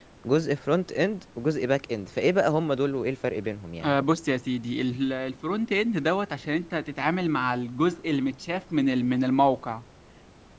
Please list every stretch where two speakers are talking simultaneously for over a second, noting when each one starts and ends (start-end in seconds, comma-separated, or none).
none